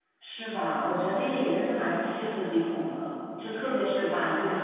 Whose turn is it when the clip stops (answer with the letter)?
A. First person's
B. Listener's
A